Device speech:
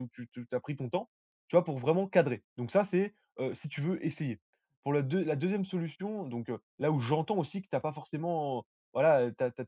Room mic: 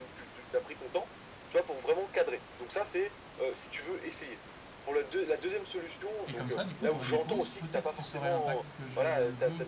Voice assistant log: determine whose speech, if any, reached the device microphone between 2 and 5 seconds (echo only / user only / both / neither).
echo only